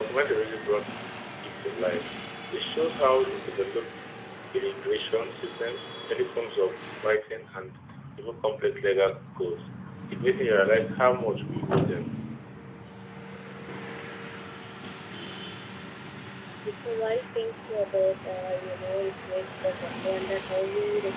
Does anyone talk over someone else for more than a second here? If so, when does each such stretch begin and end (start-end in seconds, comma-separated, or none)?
none